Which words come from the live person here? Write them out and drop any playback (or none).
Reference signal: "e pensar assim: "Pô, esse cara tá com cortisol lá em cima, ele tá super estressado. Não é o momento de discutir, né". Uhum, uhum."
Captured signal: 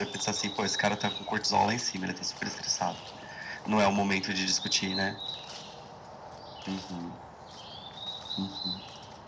none